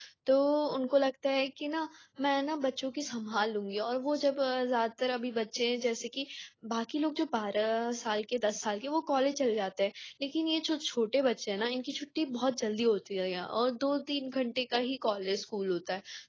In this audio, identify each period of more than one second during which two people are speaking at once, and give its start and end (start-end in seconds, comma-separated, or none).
none